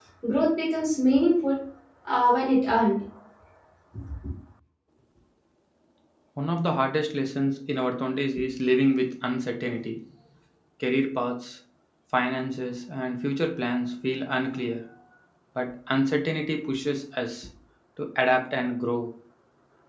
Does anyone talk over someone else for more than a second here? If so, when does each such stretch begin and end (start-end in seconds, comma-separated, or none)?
none